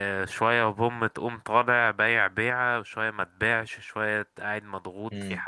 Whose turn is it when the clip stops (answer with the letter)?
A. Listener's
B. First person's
B